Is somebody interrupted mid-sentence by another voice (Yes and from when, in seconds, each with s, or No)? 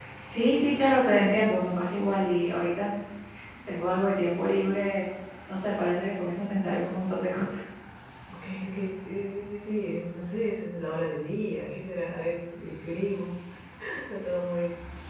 No